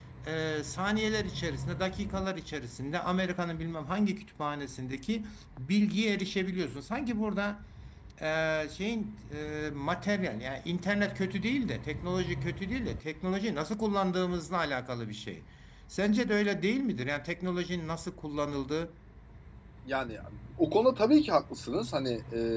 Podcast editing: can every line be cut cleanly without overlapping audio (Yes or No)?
Yes